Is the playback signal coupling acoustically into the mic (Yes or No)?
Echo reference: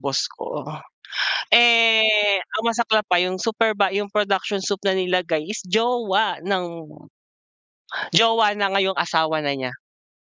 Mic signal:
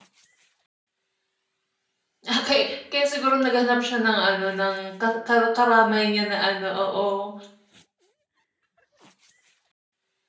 No